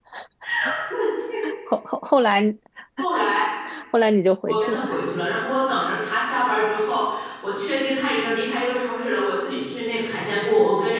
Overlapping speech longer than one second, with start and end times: none

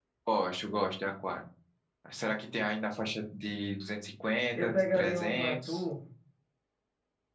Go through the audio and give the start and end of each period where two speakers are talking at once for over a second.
4.5-5.8

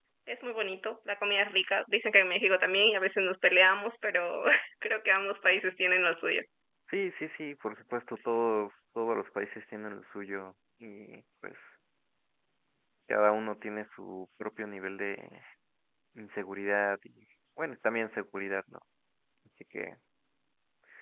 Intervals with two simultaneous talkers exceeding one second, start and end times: none

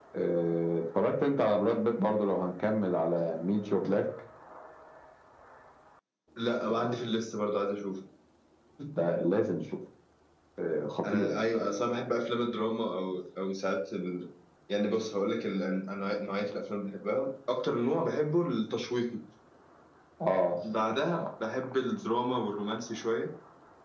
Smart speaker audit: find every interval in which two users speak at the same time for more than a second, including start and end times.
none

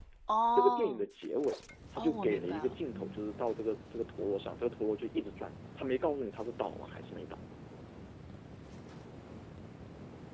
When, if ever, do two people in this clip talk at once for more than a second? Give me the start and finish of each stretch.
1.9-3.2

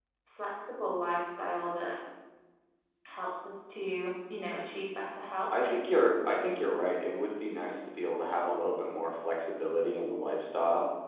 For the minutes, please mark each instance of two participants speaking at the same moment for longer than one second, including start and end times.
none

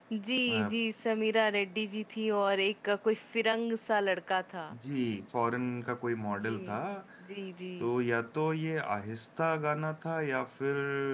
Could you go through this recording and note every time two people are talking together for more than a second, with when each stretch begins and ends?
none

